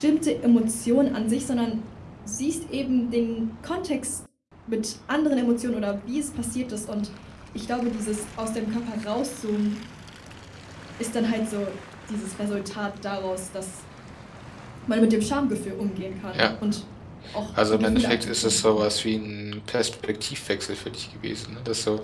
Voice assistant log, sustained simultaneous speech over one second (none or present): present